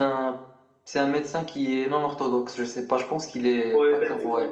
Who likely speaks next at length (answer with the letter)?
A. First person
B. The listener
B